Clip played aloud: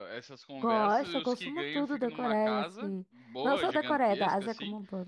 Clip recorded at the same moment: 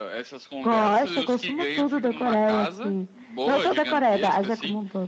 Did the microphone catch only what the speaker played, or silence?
Yes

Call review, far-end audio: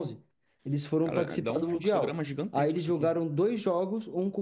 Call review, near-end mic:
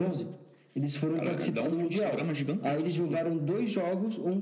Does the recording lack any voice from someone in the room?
Yes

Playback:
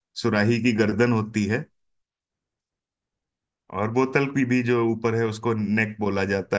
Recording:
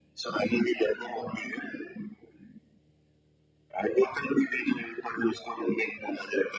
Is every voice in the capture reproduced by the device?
Yes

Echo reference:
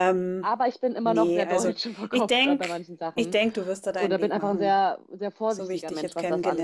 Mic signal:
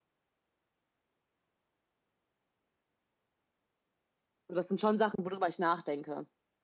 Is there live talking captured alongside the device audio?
Yes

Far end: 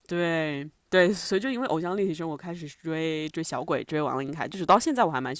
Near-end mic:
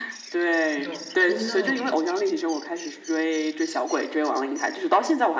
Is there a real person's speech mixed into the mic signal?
Yes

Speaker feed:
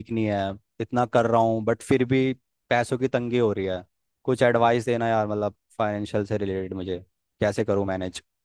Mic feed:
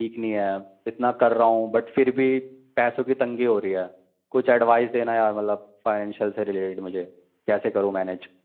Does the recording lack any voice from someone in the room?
Yes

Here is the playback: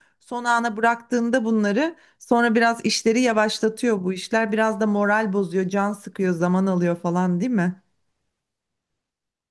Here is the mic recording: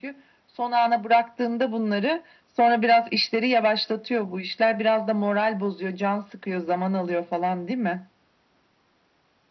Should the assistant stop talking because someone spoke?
No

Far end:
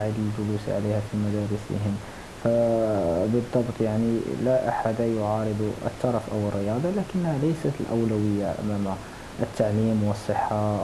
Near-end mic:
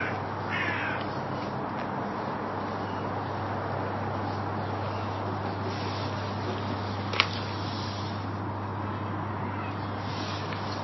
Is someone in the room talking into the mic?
No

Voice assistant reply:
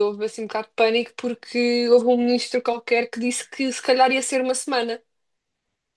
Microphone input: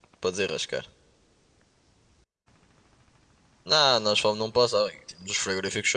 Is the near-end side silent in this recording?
No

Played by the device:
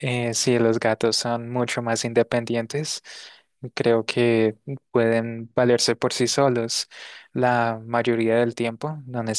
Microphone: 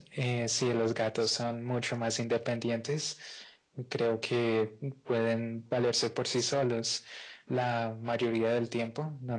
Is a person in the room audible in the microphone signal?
No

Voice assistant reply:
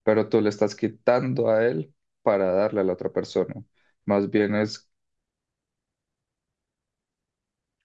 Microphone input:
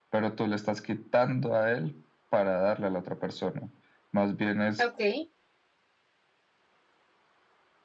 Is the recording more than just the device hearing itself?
Yes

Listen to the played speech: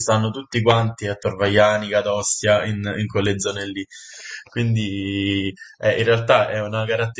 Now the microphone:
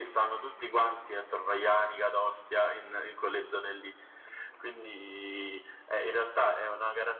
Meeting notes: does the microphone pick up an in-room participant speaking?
No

